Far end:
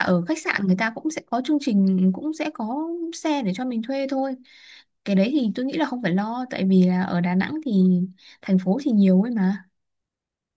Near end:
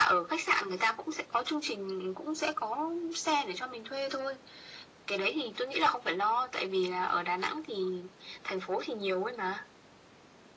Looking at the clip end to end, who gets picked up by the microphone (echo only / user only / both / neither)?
echo only